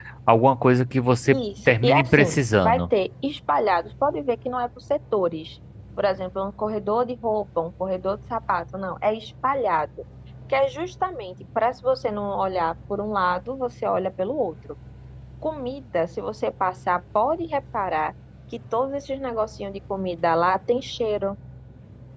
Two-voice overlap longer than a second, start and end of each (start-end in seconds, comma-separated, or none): 1.3-2.8